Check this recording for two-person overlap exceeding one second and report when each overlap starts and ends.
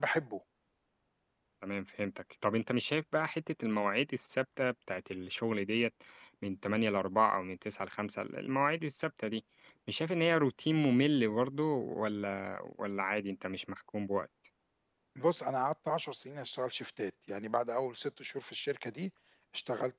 none

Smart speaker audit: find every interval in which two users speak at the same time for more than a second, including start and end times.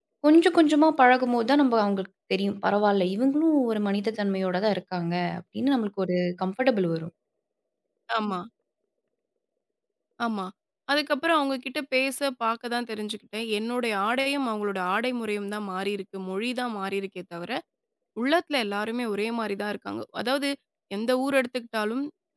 none

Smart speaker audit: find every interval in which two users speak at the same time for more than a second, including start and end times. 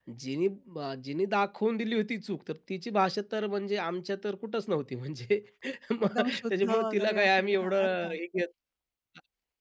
6.0-8.2

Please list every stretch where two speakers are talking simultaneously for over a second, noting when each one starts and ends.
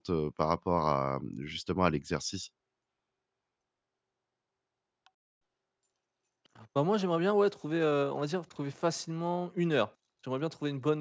none

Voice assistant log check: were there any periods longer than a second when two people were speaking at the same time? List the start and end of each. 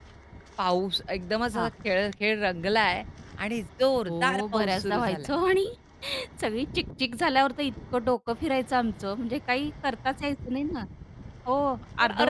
4.1-5.3

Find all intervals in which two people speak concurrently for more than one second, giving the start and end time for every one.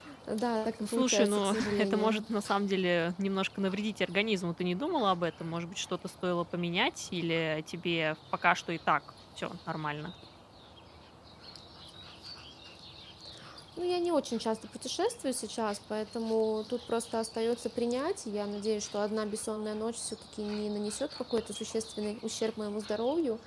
0.8-2.2

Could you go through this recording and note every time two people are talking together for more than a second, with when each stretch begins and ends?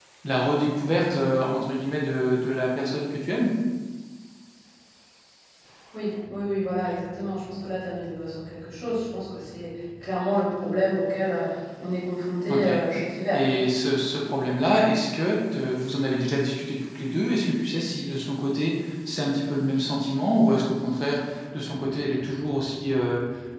none

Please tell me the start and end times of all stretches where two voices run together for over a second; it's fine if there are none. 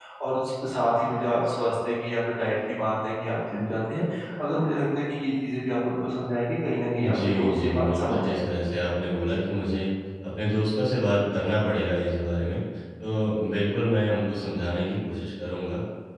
7.2-8.6

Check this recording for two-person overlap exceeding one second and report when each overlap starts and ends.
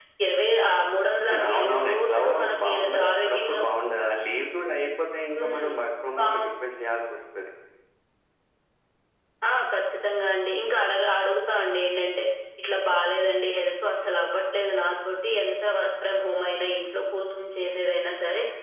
1.3-3.6

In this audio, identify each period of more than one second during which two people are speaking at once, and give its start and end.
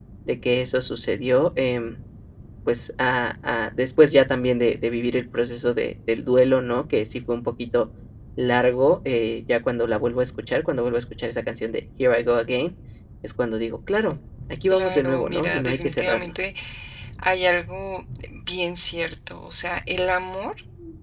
14.7-16.3

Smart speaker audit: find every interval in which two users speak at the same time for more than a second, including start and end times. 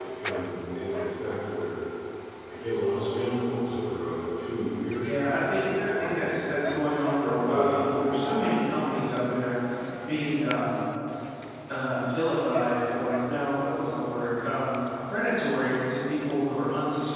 5.0-6.6, 7.2-8.7

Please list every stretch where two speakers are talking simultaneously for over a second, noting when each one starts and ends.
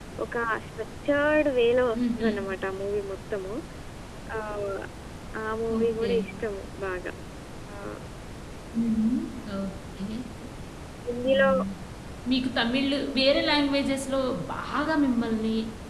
none

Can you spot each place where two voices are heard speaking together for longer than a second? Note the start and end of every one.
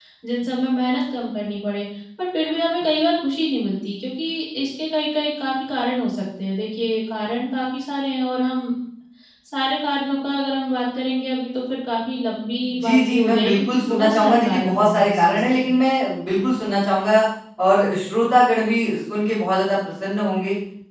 12.8-15.6

